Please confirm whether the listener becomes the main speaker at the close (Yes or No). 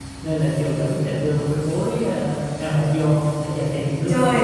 Yes